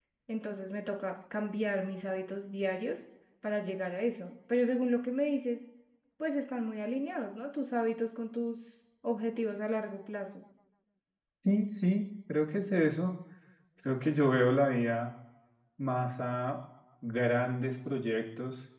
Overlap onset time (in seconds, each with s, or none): none